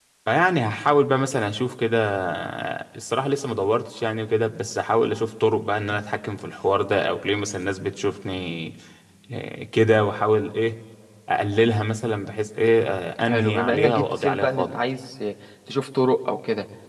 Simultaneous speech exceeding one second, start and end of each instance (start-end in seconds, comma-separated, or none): 13.2-14.8